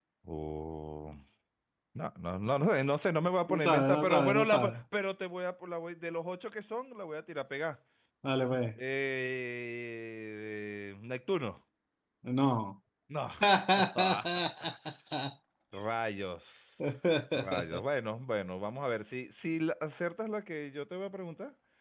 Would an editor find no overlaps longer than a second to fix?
No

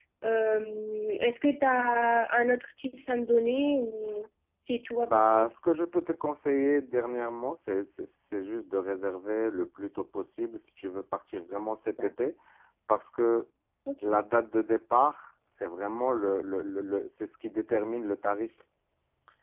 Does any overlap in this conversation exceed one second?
No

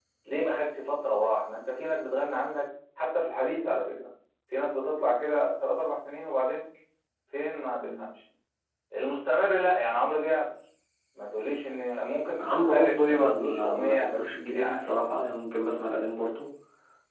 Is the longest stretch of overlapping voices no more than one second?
No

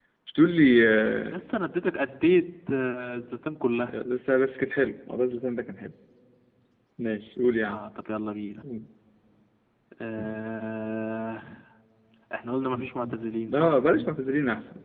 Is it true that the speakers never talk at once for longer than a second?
Yes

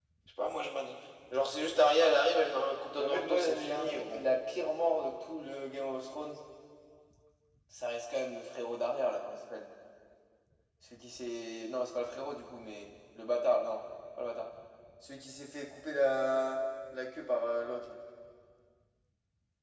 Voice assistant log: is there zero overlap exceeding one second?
No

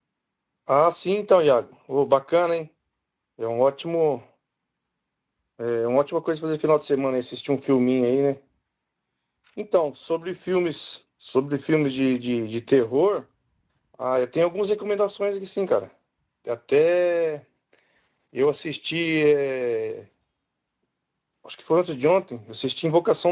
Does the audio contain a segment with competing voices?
No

